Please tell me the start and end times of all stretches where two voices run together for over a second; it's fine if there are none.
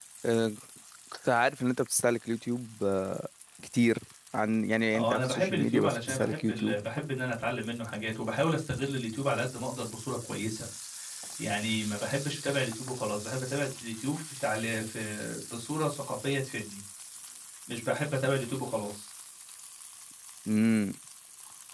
5.0-6.8

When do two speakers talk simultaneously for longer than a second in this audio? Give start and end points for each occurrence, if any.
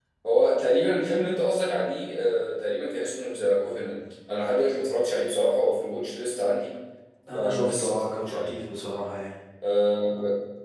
7.3-8.6

